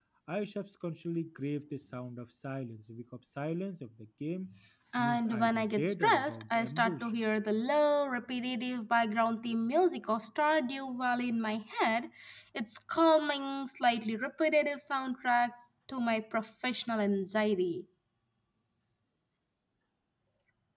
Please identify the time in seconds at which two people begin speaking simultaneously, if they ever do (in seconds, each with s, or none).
5.0 s